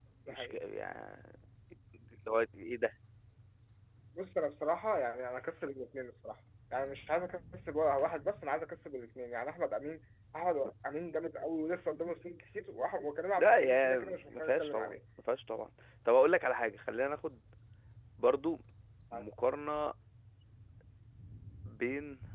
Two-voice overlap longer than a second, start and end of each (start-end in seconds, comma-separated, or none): 13.4-15.0